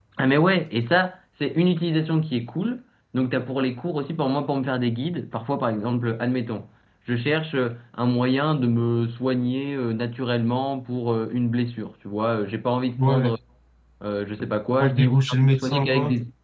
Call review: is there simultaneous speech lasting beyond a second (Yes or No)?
Yes